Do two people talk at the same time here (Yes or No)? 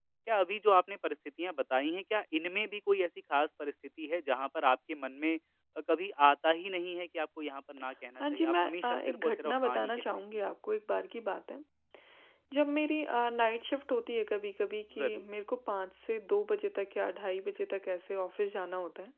Yes